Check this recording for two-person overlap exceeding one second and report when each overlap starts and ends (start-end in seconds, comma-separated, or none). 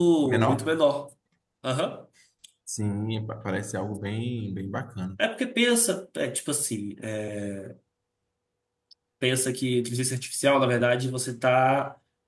none